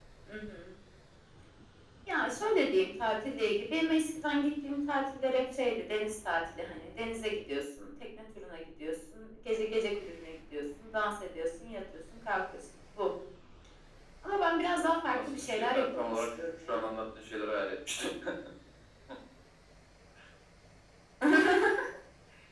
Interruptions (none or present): present